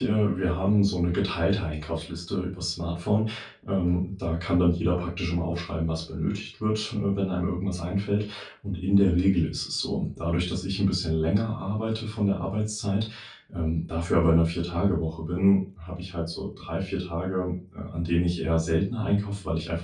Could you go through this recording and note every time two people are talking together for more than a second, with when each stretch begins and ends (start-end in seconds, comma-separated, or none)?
none